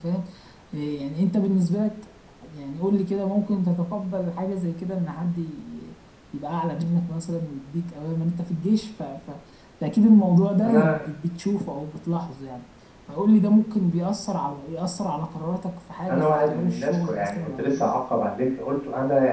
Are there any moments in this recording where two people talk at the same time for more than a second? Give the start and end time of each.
16.1-17.9

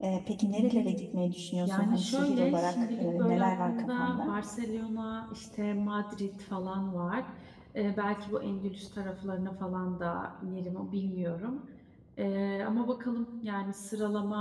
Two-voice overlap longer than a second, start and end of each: 1.6-4.3

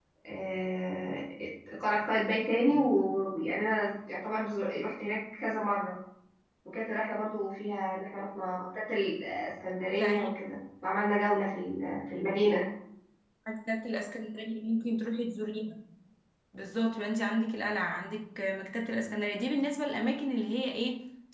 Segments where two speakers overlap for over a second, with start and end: none

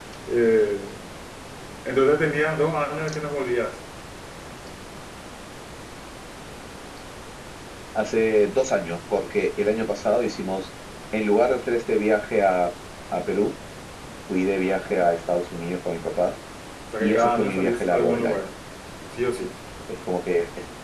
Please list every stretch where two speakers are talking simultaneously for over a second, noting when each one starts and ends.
17.0-18.5

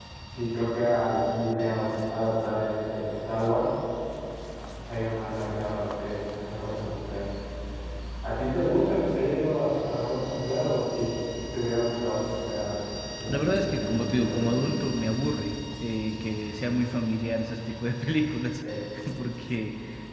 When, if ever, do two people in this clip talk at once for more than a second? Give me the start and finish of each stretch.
13.3-14.8

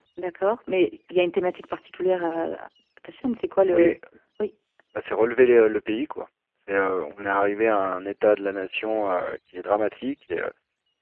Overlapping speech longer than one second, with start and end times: none

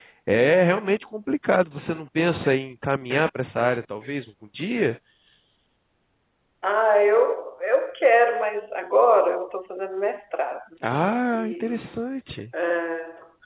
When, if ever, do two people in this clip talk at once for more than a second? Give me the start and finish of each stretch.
none

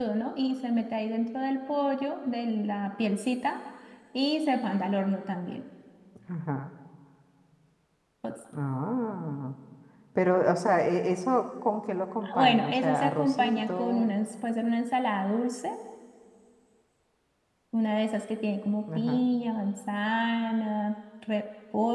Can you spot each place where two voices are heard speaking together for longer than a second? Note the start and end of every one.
12.4-14.1

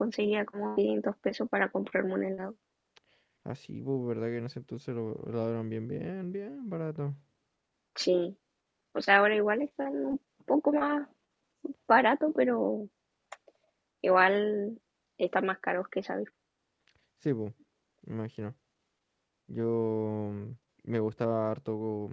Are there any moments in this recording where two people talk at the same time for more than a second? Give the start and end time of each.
none

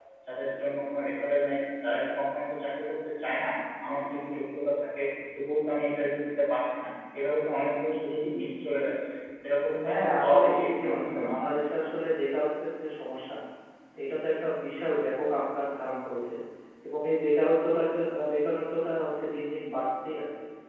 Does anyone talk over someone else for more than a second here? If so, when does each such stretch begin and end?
9.8-11.5

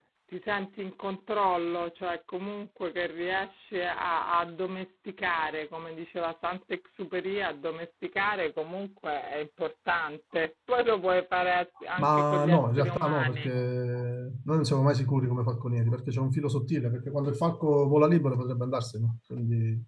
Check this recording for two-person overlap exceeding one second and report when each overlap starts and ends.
12.0-13.5

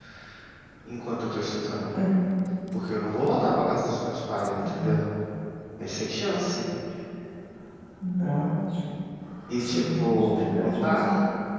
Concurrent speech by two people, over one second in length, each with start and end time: 9.6-11.0

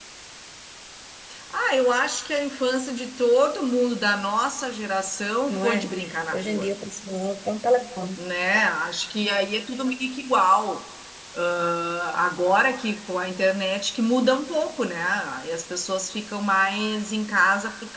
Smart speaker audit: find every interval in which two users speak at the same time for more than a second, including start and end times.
none

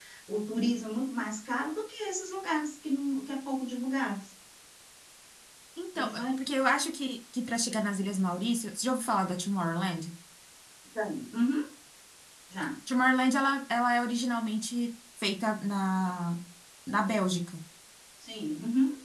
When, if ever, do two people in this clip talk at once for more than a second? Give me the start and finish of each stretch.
none

